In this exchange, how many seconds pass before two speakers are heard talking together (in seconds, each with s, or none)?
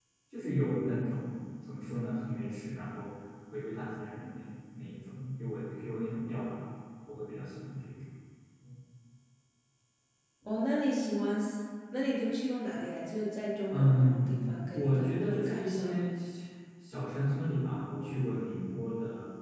13.7 s